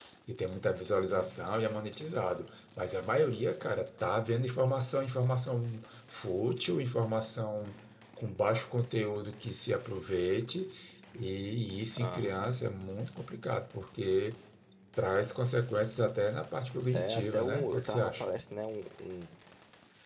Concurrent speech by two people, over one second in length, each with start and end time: 16.9-18.2

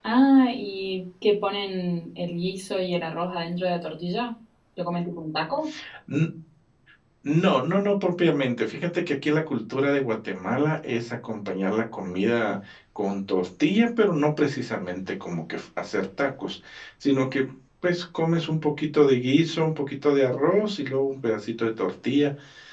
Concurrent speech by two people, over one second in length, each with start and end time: none

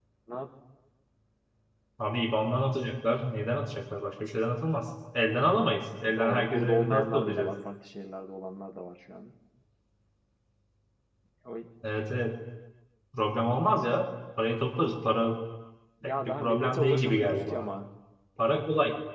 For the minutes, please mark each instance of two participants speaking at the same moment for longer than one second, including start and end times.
6.1-7.5, 16.1-17.7

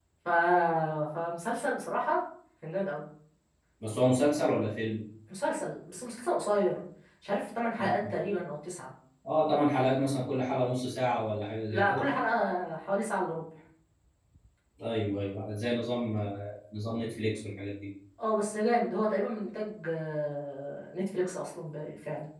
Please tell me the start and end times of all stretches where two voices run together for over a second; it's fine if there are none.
none

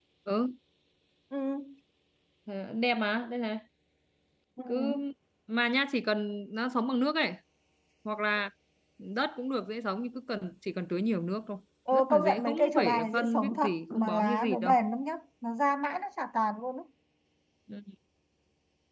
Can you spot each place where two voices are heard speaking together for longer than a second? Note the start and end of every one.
11.9-14.7

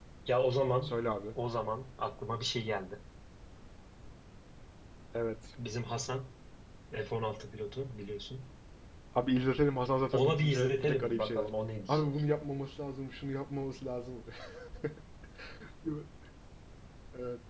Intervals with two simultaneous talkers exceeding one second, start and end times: 10.1-11.5

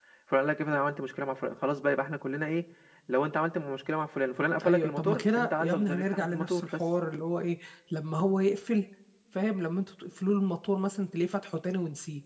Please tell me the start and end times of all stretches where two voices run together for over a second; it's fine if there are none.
4.6-6.8

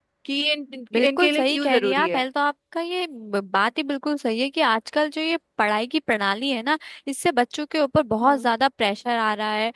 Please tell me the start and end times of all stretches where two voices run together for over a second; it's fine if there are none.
0.9-2.2

